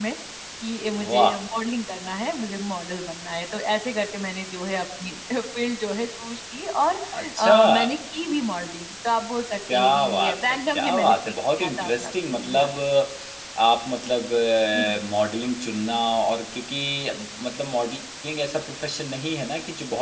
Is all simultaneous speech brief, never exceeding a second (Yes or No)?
No